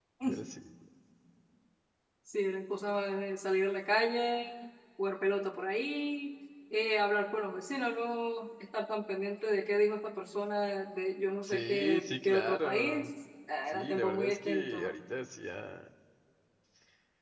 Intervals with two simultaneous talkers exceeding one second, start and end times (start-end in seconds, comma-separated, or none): 11.4-13.1, 13.7-15.0